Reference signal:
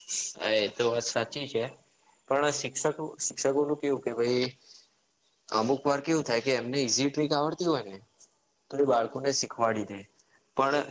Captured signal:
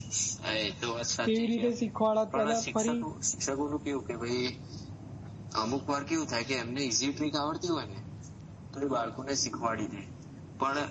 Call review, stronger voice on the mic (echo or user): user